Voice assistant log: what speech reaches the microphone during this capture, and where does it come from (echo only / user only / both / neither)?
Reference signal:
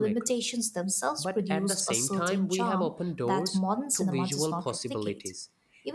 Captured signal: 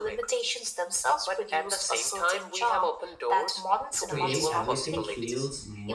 both